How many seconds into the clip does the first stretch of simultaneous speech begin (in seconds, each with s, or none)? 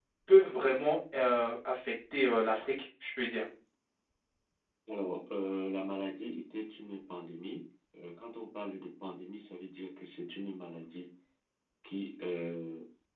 none